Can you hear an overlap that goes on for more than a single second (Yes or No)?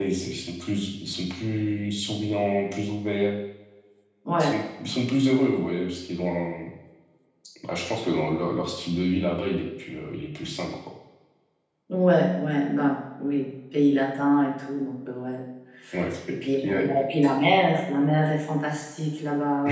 No